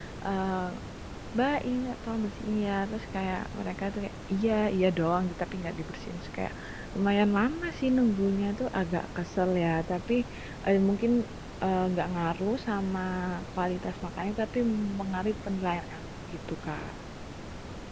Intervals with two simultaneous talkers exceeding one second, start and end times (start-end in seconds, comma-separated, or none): none